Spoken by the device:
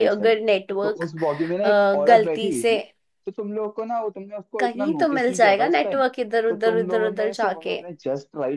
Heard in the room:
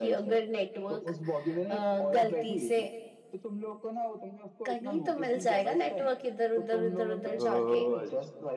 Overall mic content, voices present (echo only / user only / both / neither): both